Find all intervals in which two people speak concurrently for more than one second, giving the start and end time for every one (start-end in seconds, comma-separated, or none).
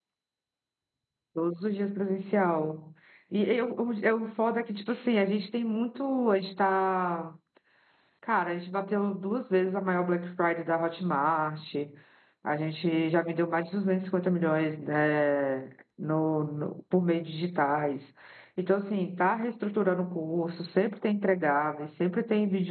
none